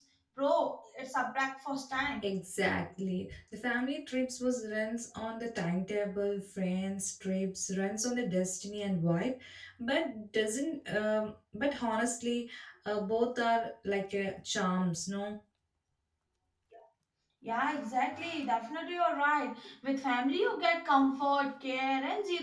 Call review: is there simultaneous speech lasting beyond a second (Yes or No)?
No